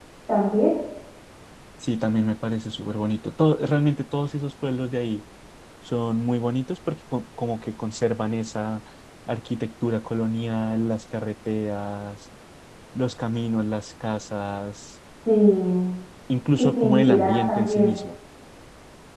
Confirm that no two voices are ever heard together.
No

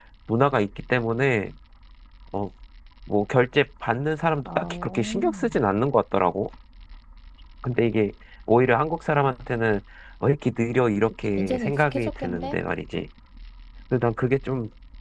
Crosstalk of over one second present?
Yes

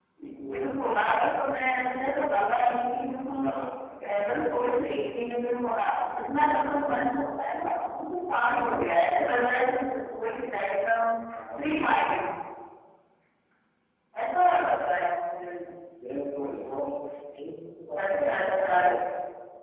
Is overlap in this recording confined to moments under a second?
No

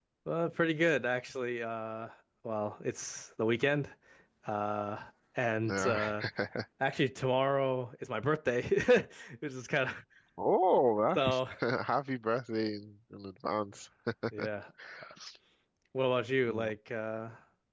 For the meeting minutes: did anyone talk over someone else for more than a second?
No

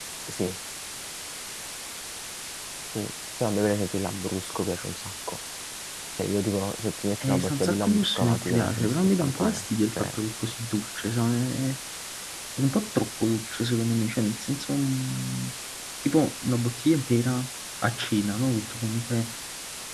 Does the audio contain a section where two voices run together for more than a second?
Yes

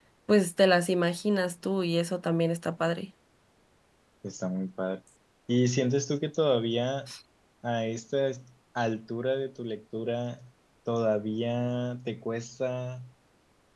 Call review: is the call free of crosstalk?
Yes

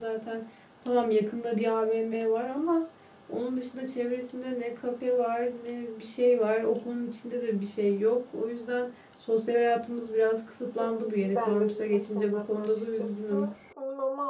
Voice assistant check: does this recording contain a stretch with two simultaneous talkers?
Yes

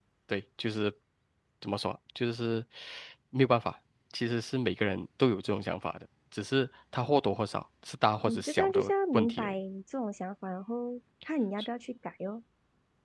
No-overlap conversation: No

